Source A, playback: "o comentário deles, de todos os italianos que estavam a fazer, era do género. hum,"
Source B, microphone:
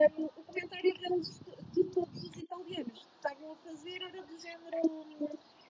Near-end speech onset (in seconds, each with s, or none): none